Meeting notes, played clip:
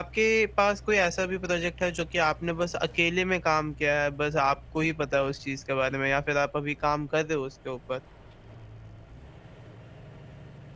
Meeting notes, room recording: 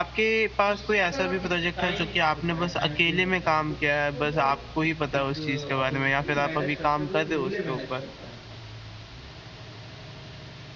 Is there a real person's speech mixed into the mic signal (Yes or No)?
Yes